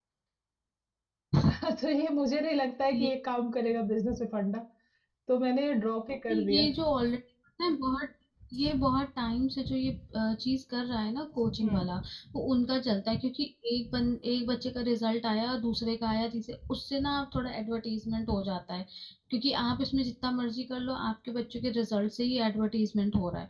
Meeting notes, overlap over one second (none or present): none